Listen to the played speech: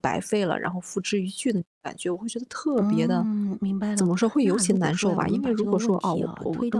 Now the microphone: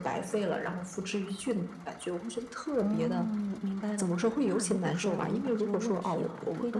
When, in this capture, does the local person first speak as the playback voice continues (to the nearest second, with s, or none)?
none